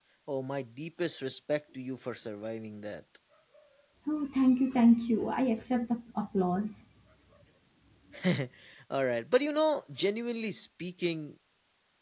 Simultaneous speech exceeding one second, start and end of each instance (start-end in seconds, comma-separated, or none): none